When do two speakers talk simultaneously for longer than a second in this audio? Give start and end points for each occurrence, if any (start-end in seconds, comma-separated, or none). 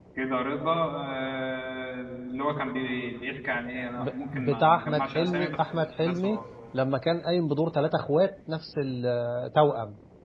4.0-6.4